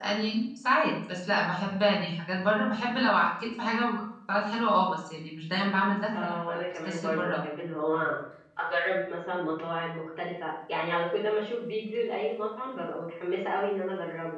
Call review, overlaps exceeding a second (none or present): present